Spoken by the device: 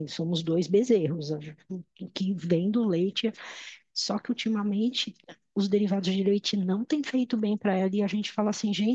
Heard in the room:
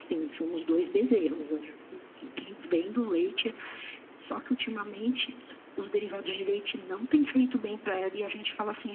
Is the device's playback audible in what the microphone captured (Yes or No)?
Yes